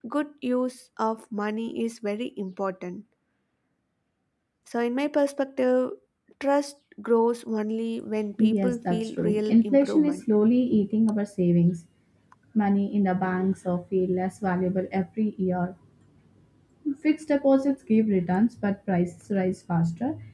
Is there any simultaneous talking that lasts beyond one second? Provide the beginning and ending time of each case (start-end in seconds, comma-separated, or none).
8.4-10.2